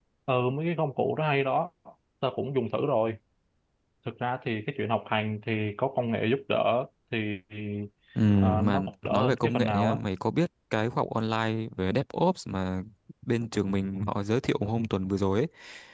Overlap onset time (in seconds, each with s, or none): 8.6 s